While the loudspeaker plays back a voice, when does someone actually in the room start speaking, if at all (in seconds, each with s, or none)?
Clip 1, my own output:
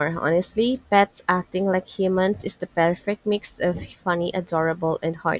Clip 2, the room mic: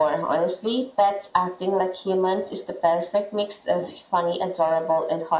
none